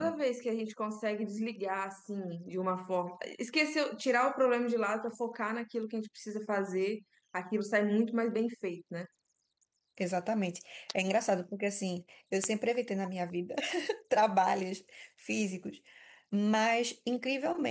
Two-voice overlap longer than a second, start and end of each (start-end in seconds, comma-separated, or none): none